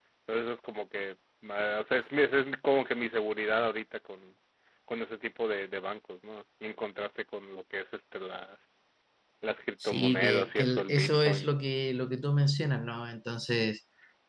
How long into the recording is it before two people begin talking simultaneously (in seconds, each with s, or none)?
9.8 s